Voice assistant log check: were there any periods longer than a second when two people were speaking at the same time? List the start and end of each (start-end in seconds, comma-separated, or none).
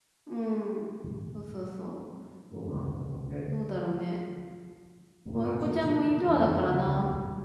5.3-6.8